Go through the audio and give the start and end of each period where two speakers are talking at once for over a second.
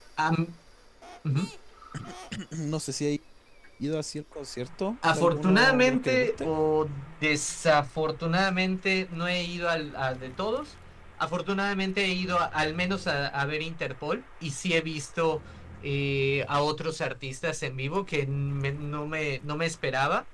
5.1-6.5

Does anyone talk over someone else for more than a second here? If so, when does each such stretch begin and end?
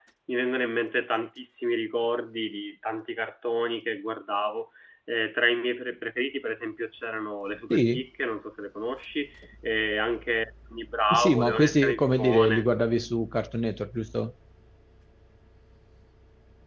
11.1-12.7

